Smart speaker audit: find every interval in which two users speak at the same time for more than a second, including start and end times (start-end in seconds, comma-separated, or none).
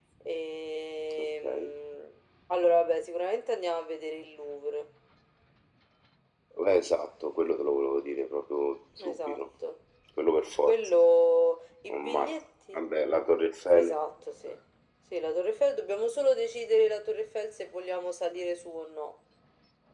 none